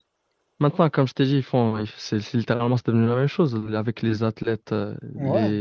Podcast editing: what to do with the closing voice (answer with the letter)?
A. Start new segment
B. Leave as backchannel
B